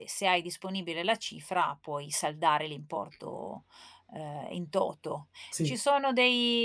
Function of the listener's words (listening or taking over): listening